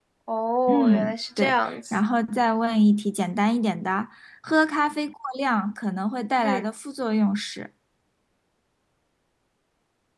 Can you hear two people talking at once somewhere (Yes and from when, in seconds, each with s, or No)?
Yes, from 0.7 s